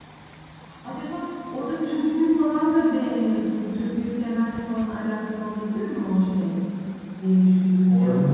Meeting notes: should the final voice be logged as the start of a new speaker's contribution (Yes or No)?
Yes